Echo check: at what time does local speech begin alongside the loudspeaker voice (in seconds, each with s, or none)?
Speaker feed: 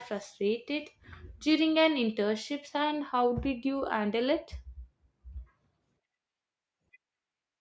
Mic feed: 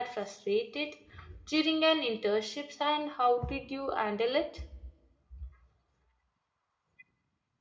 none